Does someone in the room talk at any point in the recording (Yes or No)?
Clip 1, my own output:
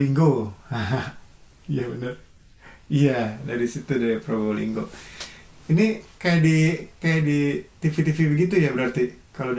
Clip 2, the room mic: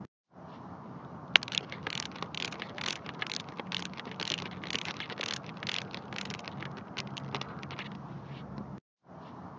No